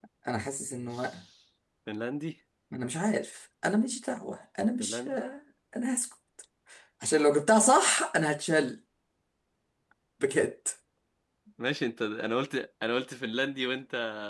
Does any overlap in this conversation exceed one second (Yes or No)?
No